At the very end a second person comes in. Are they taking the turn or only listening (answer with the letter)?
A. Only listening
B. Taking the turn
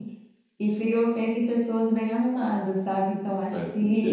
A